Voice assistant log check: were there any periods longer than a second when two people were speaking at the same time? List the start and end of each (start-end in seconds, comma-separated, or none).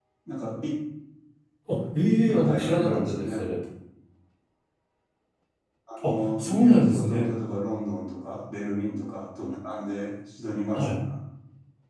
2.0-3.5, 6.0-7.3